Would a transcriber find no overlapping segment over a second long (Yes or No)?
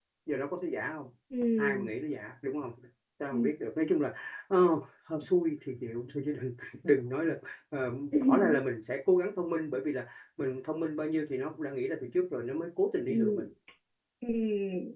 Yes